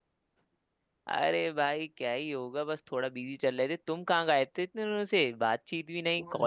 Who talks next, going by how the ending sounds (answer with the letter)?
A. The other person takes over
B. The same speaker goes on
A